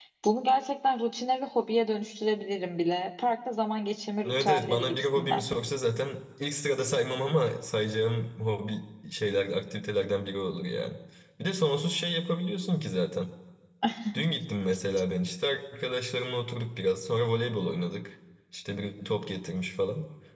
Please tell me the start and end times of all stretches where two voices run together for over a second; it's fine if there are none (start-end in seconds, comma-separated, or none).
4.2-5.5